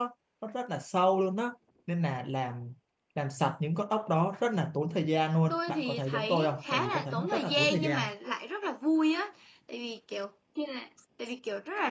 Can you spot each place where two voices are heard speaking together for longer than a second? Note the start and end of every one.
5.5-8.0

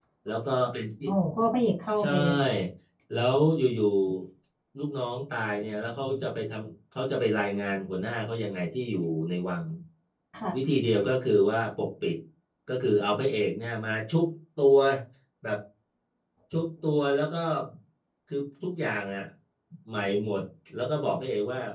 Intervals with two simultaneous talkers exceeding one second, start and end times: none

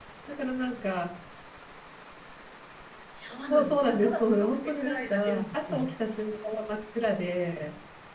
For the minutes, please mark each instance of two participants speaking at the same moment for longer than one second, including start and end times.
3.5-5.8

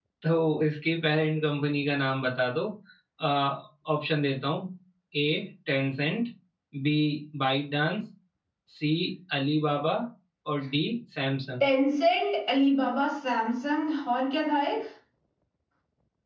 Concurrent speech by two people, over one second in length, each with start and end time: none

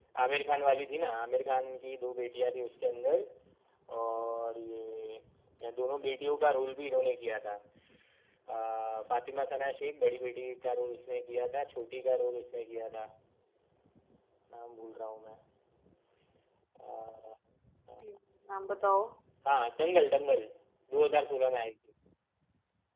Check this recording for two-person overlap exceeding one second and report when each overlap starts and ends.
none

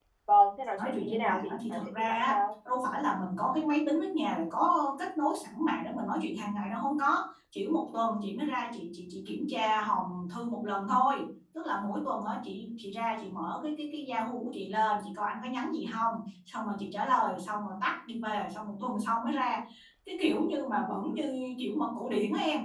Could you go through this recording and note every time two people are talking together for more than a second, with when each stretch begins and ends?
0.8-2.4

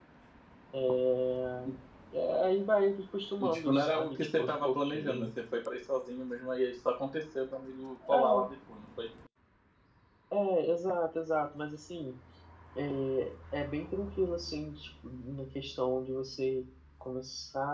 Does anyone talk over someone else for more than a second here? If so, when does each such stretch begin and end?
3.5-5.3

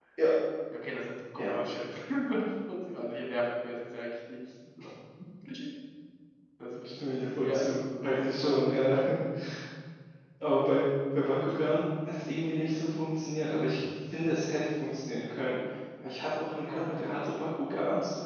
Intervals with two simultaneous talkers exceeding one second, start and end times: 7.4-8.6

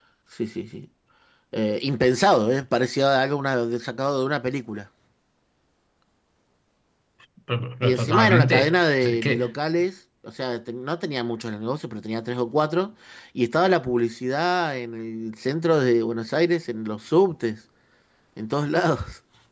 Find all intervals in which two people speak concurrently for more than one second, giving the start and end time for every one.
7.8-9.4

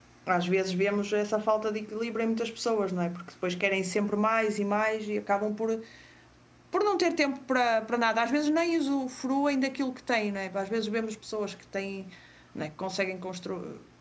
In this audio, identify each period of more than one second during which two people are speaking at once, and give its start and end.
none

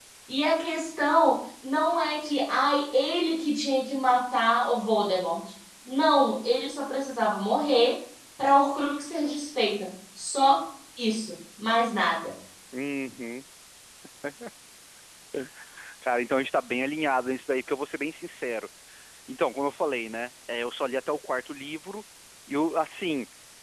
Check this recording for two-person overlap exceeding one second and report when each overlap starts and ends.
none

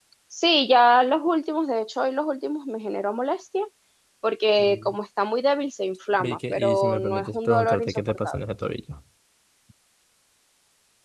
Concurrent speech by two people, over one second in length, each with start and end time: 6.2-8.4

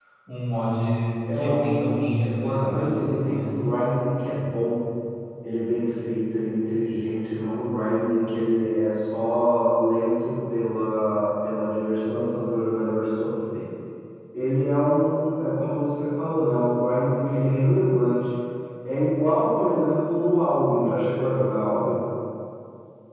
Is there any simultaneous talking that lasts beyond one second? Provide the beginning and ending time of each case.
1.3-3.6

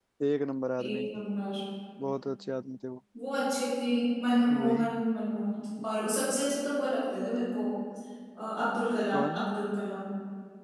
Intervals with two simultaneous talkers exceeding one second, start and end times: none

